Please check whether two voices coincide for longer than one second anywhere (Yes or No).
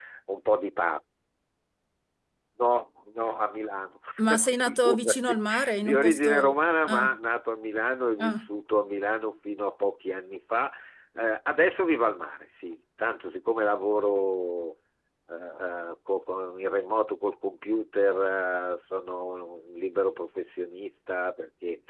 Yes